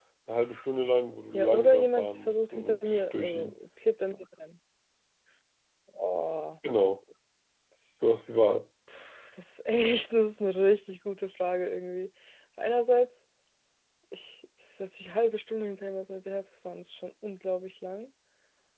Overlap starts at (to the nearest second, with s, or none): 1 s